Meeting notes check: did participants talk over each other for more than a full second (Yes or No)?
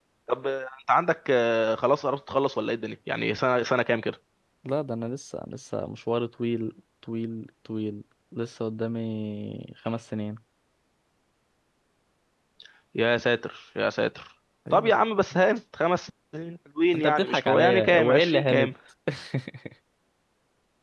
Yes